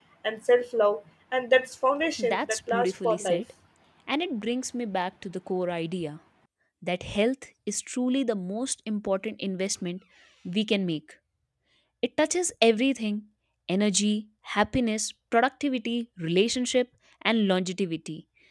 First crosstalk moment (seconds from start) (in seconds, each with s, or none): 2.2 s